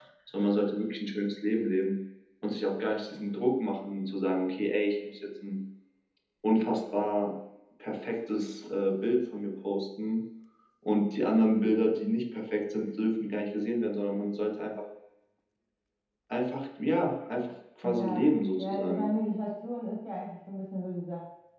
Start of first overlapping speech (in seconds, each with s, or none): 17.8 s